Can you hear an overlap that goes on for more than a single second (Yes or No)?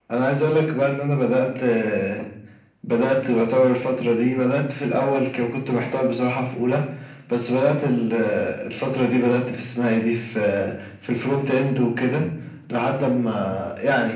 No